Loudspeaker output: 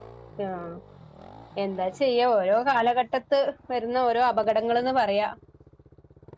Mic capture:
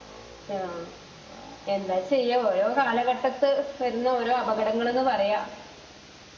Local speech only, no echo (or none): none